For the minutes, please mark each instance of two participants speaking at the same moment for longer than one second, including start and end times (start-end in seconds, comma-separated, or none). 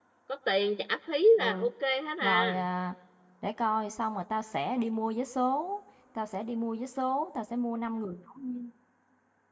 none